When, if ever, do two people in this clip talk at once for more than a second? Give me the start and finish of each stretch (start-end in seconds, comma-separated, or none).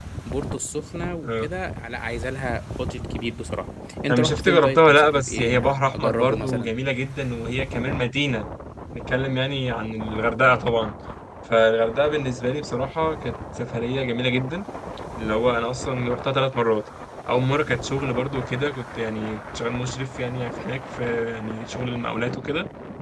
4.1-6.7